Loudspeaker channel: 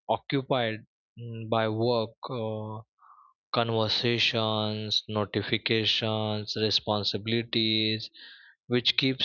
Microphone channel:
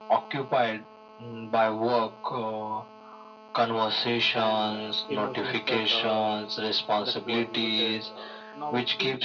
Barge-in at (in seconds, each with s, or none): 4.3 s